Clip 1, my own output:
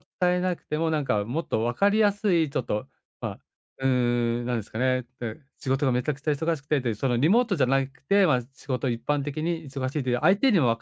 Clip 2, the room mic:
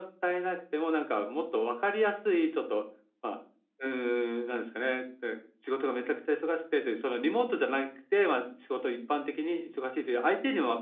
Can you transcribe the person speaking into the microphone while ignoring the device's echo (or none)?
none